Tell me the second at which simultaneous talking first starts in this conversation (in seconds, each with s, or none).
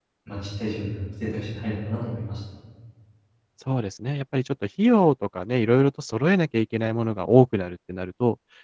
none